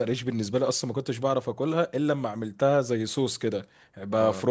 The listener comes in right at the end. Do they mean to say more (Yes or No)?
No